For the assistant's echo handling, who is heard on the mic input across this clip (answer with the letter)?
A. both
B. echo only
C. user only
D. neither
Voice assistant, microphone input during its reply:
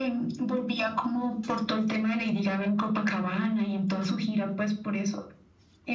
B